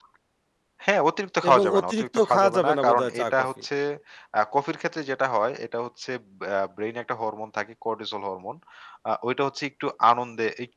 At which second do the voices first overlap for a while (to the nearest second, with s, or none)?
1 s